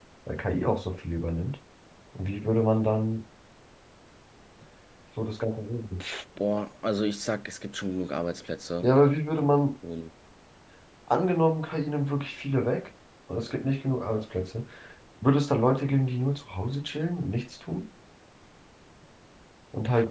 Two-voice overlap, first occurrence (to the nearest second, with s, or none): none